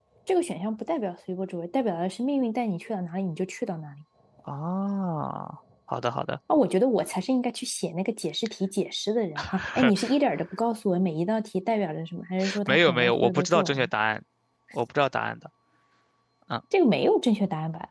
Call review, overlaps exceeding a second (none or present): present